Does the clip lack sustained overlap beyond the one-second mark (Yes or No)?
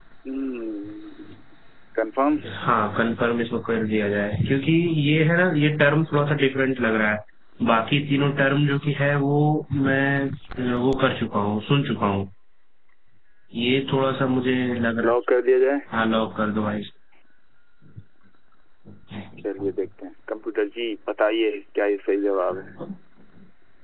Yes